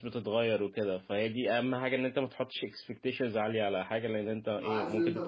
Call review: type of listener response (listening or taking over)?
taking over